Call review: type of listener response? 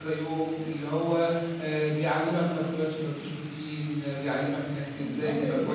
taking over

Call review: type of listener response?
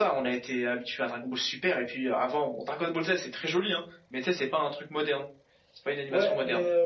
taking over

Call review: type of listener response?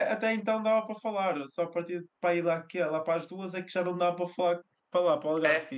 taking over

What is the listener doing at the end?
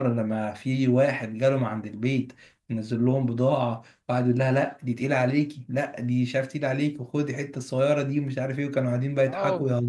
taking over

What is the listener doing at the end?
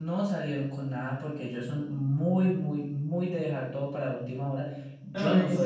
listening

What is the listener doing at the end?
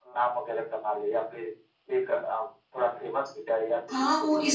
taking over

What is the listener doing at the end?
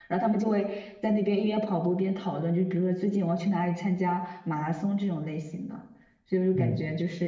listening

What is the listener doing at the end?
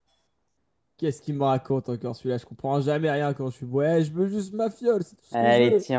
taking over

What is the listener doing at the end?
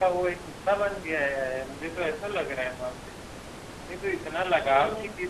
listening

